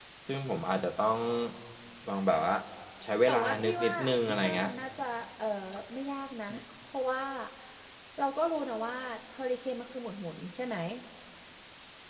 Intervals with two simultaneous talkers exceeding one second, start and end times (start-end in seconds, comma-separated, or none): 3.3-4.7